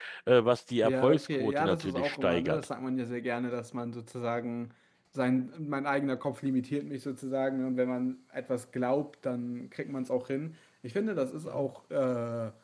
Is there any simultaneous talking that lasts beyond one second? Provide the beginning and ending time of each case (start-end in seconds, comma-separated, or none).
0.8-2.6